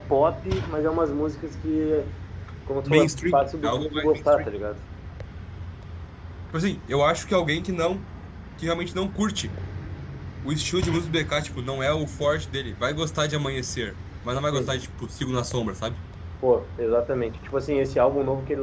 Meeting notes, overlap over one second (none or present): present